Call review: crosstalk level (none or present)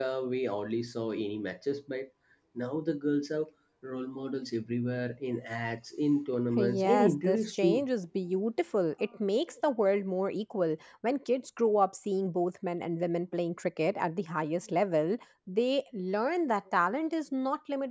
present